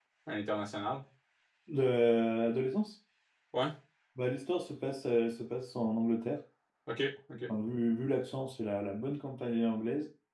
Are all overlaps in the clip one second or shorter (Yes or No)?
Yes